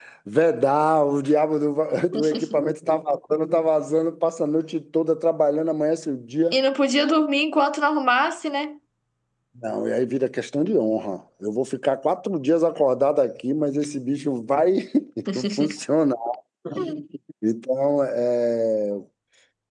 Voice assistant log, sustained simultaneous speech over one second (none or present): none